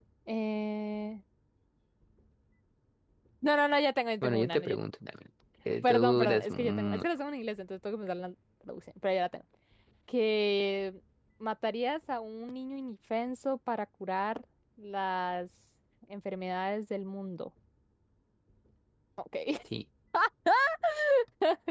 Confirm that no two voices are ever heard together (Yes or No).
No